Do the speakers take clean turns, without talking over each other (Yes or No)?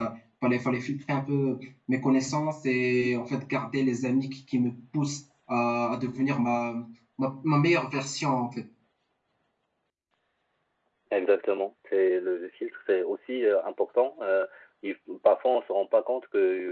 Yes